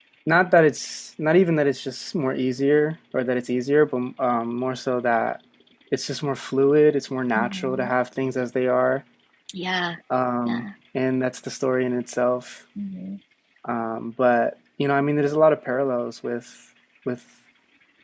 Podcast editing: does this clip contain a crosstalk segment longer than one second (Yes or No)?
No